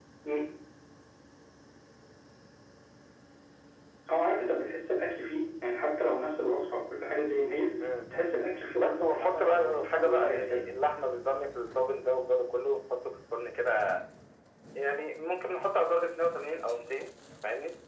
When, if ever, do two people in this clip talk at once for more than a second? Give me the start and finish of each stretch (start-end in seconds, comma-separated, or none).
8.7-10.6